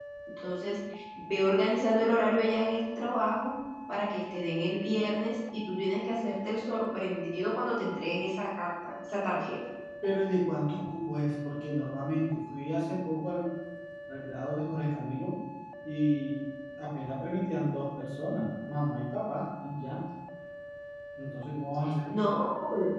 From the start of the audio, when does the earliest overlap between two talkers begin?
none

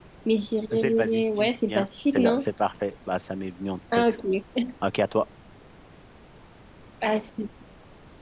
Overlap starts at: 1 s

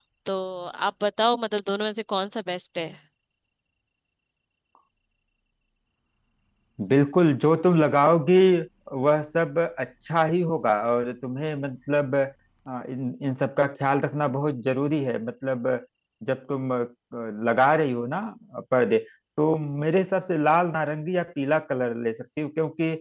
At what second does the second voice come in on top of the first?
none

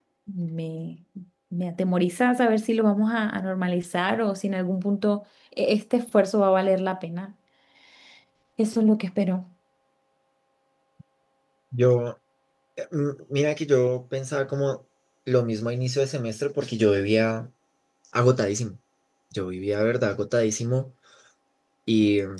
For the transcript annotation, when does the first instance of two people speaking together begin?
none

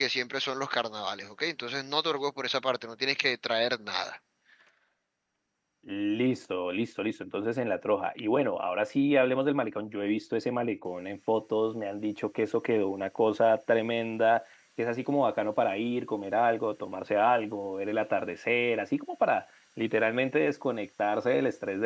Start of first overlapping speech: none

